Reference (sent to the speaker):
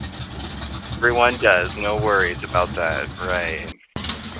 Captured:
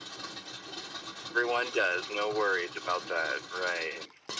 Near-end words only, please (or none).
none